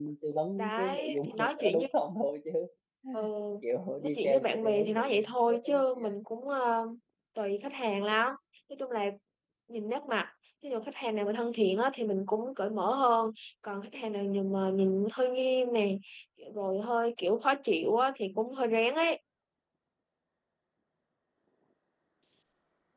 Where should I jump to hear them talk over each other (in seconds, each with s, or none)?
0.6 s